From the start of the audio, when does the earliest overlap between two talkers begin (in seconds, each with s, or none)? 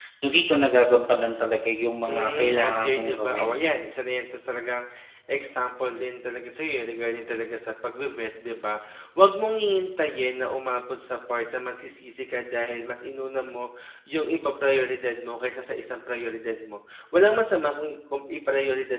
2.1 s